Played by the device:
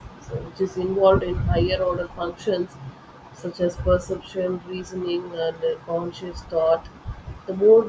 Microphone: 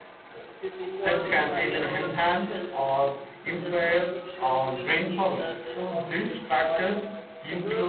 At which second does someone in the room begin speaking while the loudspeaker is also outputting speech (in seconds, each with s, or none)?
1.0 s